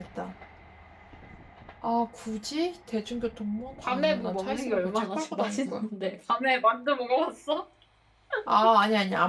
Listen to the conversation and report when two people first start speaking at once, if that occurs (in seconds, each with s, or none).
3.8 s